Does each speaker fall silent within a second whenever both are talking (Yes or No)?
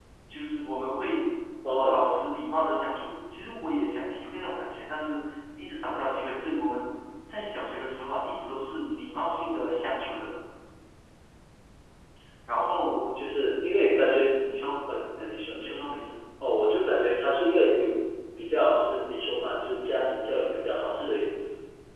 Yes